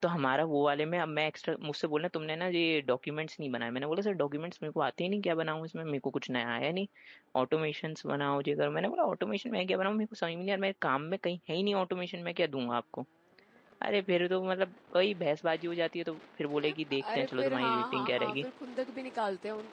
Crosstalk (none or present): present